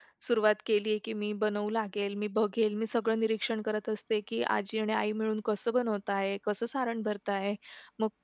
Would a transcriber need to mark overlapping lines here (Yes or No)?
No